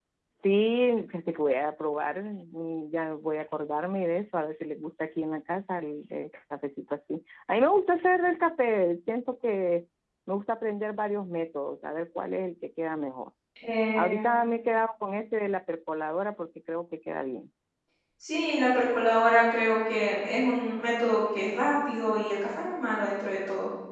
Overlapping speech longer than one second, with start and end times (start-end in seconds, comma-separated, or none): none